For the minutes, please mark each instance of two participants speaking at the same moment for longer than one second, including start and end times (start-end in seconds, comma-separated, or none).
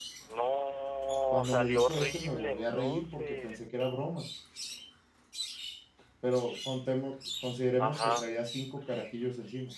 1.3-3.6